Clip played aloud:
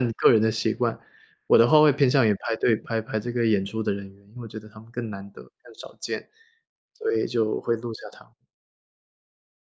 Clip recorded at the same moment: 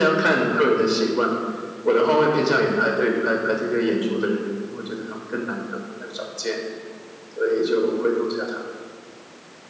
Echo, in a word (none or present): present